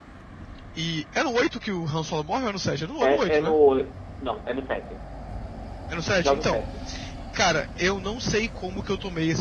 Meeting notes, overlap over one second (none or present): none